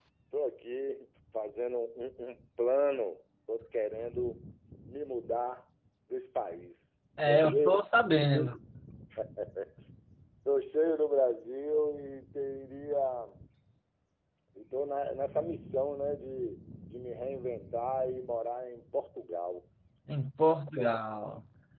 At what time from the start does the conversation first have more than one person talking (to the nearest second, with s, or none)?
7 s